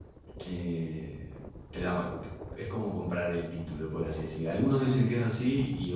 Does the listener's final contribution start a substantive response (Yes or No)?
No